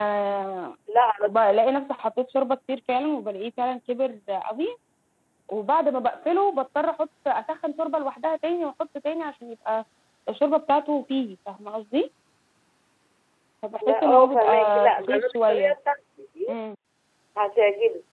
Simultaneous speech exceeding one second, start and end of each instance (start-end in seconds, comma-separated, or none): 13.8-15.7